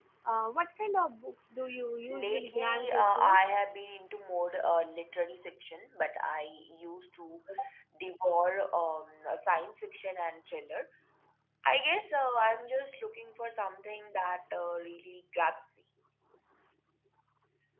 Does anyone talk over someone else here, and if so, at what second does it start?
2.1 s

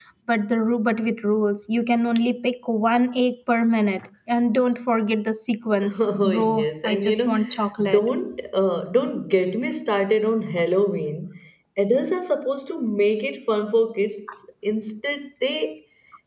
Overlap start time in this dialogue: 6.0 s

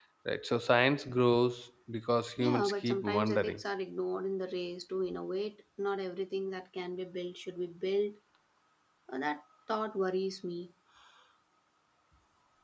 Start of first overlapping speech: 2.4 s

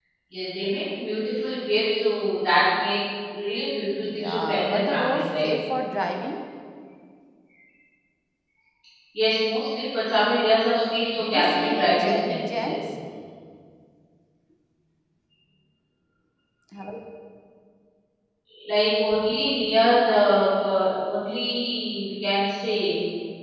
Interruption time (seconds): 4.0 s

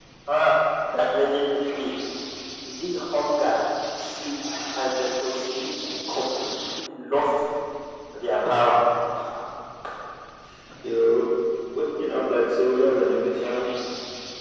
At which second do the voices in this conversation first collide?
none

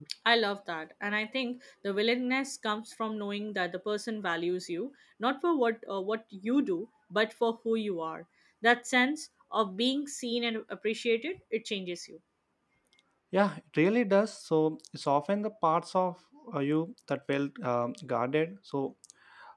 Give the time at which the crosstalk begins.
none

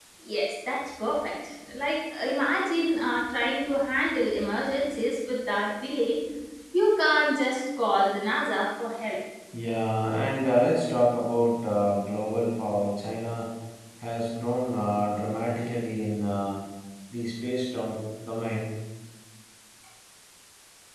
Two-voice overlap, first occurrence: none

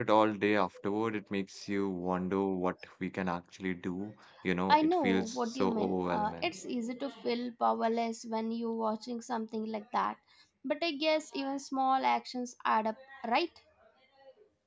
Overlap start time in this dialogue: 4.7 s

